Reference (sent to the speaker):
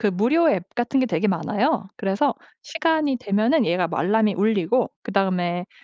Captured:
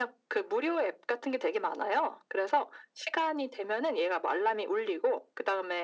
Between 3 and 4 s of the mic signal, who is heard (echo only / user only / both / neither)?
echo only